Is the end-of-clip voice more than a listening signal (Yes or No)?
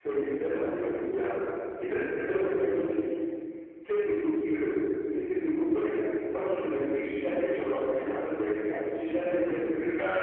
Yes